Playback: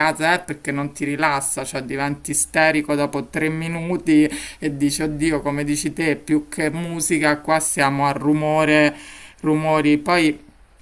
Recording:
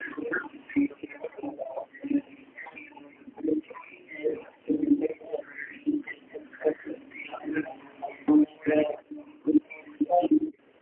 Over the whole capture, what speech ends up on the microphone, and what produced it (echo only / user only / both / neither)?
echo only